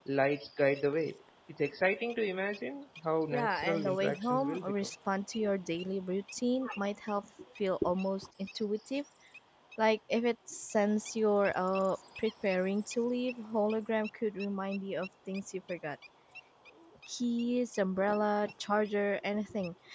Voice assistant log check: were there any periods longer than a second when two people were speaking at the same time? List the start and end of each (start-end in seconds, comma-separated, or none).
3.3-4.7